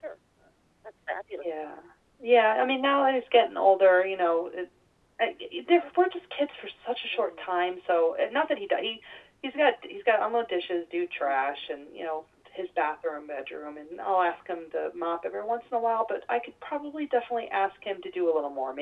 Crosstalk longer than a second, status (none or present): none